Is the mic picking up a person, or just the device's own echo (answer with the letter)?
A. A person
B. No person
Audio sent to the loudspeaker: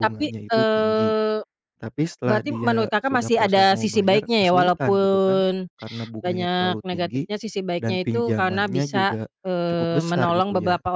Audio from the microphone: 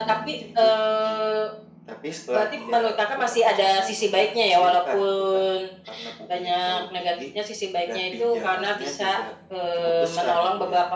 B